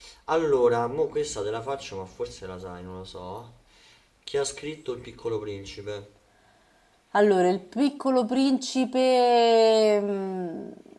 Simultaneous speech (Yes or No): No